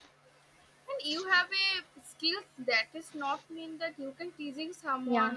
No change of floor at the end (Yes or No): Yes